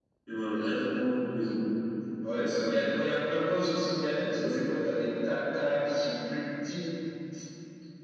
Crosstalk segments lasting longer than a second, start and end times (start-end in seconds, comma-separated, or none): none